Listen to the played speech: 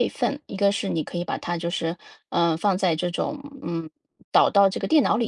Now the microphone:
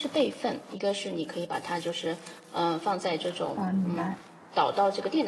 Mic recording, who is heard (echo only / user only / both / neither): both